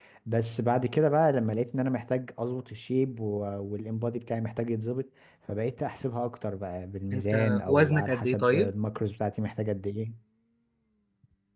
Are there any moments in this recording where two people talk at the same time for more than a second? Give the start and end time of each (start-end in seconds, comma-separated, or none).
7.1-8.7